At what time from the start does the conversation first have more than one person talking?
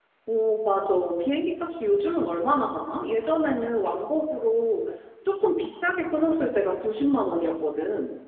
none

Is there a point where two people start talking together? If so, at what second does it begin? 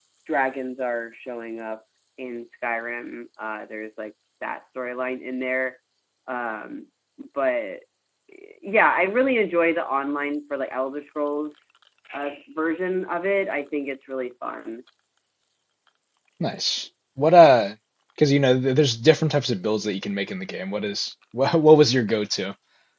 none

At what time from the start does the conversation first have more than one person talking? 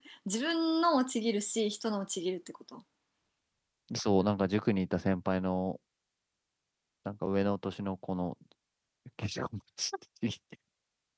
none

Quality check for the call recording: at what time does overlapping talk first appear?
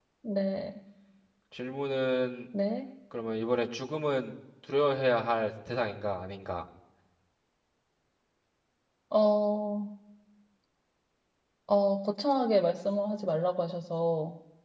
none

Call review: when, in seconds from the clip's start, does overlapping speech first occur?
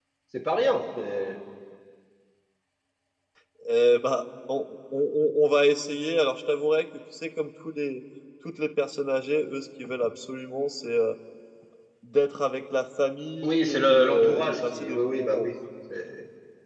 13.4 s

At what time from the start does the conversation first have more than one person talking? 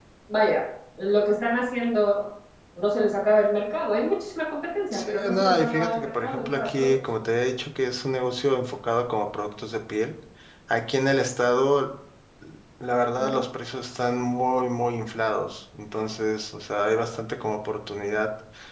4.9 s

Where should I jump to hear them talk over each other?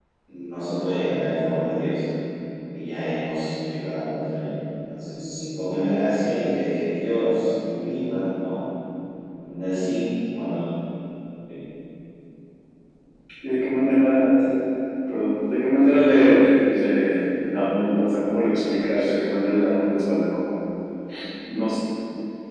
none

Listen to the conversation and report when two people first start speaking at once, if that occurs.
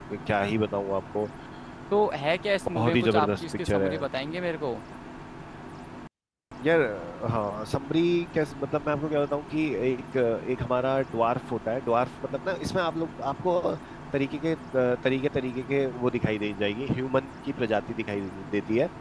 2.8 s

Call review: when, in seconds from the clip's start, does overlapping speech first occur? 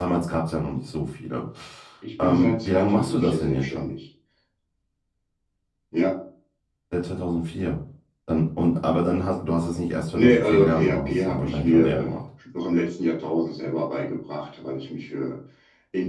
2.2 s

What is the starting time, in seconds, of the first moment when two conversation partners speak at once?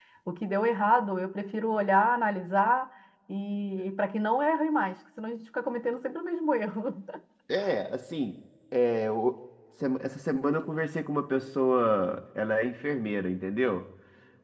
none

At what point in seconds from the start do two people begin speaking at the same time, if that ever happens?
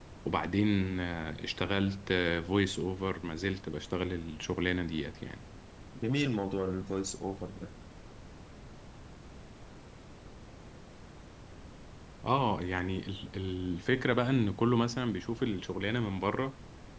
none

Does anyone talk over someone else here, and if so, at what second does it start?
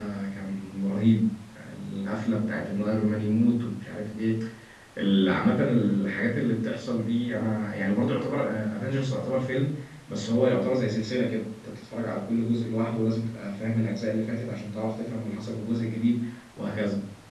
none

